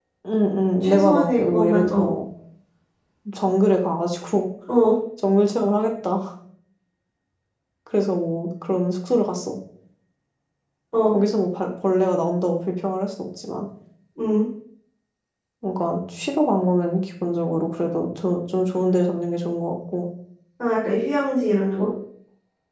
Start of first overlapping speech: 1 s

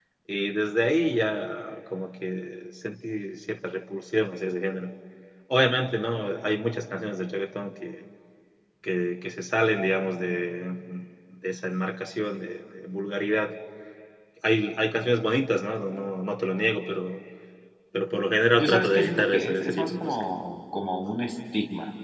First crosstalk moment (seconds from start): 19 s

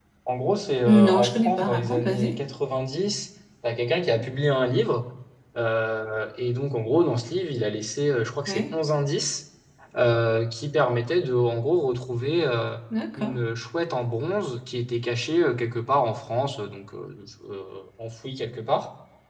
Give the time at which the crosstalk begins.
1 s

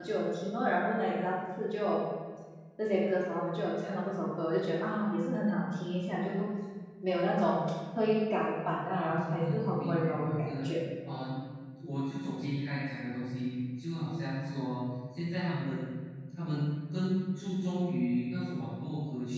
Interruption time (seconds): 9 s

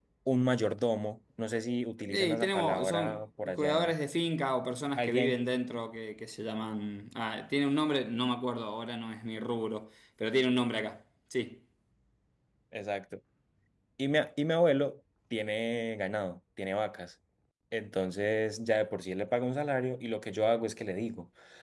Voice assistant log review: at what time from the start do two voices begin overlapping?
2 s

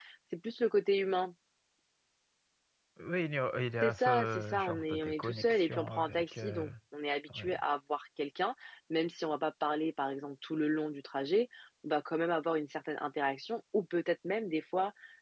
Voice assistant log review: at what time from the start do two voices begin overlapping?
4 s

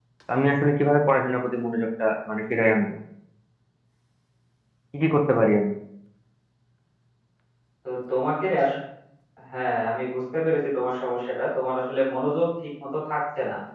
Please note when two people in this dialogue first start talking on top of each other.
none

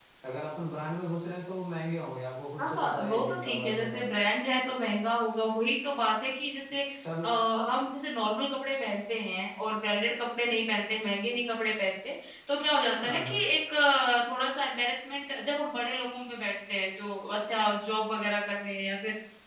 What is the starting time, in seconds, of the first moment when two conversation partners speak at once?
3 s

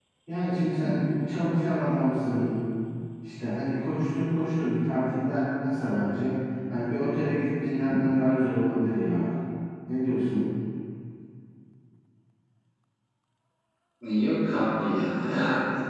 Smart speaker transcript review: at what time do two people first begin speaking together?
none

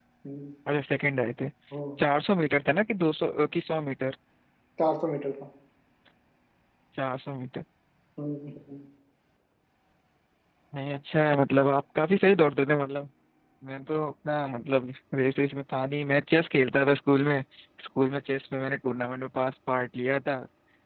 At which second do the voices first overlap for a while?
none

